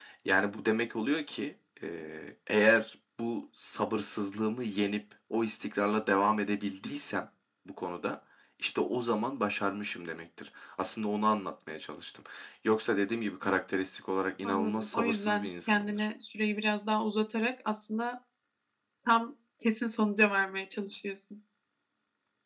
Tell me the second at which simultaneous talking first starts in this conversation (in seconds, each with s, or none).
14.4 s